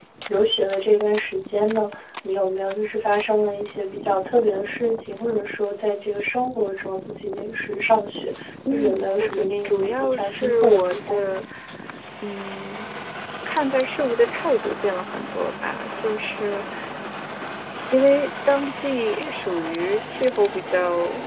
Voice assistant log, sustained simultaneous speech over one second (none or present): present